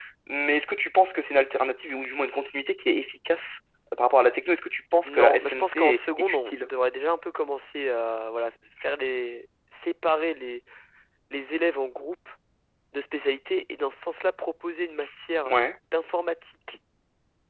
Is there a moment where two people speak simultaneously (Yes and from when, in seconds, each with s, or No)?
Yes, from 5.0 s